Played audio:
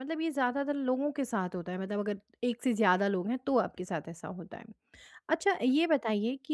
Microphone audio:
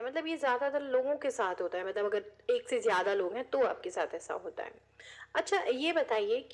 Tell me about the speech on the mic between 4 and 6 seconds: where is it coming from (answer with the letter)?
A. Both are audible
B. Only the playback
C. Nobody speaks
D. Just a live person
B